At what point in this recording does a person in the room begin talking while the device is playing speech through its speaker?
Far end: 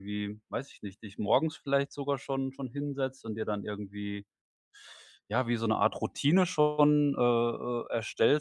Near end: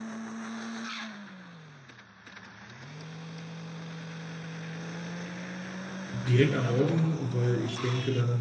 6 s

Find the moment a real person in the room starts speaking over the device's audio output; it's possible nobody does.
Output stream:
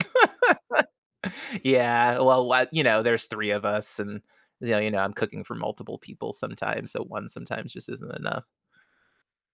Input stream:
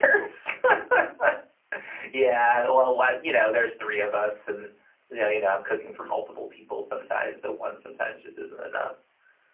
none

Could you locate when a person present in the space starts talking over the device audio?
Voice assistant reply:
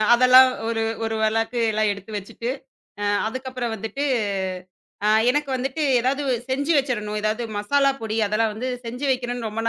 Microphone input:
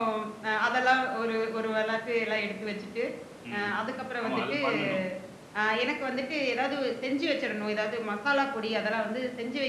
4 s

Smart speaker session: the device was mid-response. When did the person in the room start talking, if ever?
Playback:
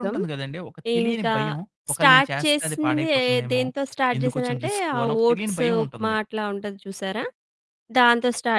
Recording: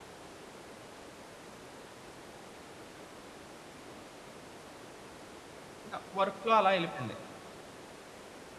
6 s

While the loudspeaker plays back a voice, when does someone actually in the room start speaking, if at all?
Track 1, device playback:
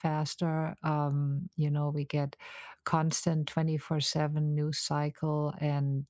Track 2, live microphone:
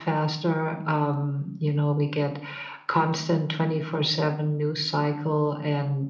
none

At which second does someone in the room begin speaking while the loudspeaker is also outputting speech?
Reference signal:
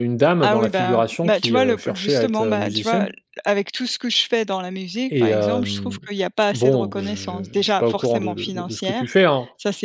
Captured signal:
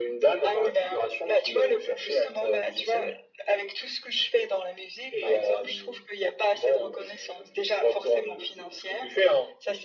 none

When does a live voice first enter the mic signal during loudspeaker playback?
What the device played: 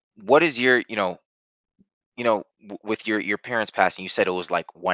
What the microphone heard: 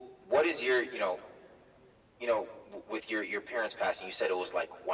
none

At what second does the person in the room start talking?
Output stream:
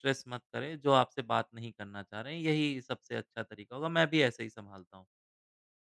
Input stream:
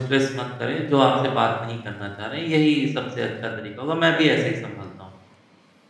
none

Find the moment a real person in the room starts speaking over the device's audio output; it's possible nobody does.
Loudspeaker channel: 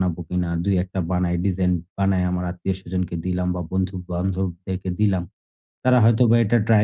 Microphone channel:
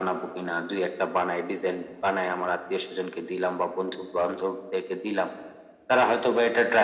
none

